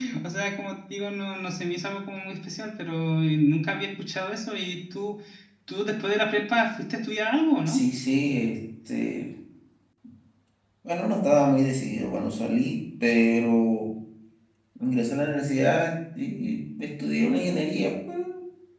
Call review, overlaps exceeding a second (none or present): none